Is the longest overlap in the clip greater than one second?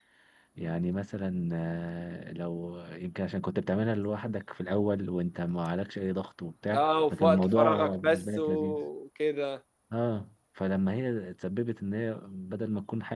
Yes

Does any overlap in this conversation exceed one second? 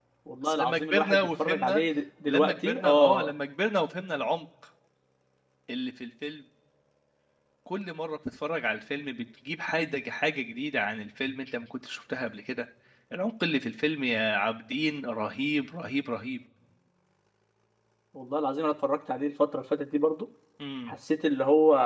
Yes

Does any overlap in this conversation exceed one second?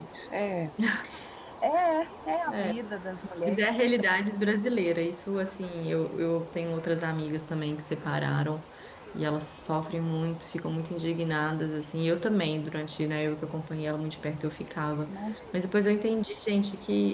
No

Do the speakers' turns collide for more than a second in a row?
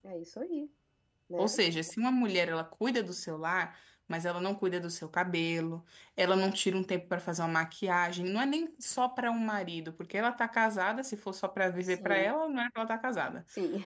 No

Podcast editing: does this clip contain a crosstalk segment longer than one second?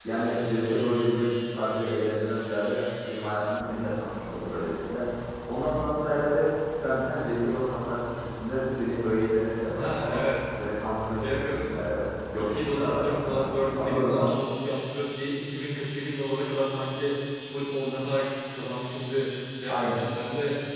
Yes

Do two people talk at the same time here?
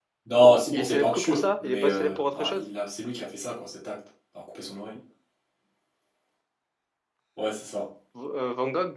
Yes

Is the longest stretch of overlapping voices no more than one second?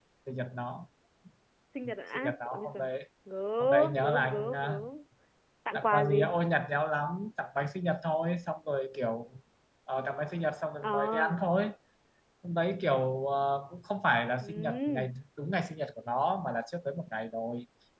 No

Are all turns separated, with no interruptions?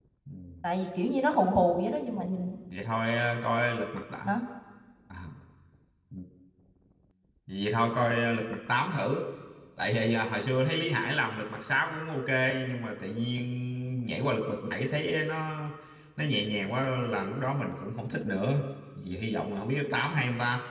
Yes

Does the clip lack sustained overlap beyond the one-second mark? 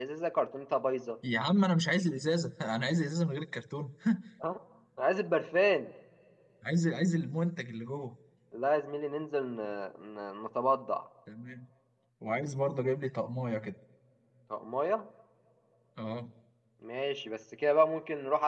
Yes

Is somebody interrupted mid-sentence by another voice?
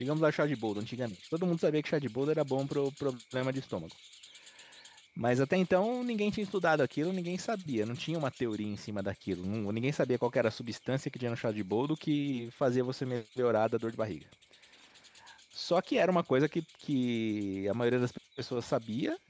No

